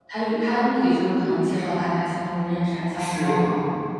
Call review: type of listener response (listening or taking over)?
taking over